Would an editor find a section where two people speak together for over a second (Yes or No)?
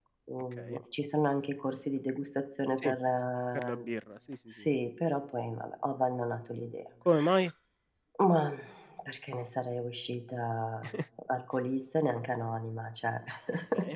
No